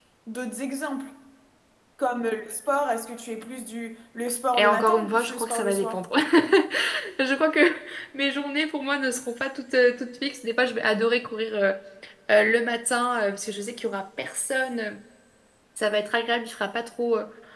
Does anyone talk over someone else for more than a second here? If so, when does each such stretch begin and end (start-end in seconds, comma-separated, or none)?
4.5-6.0